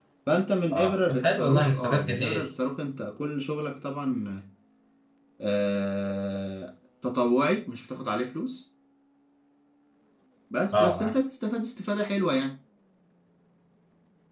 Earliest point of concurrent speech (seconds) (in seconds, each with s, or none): 0.7 s